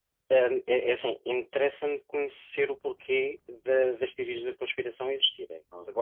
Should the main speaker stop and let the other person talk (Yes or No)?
No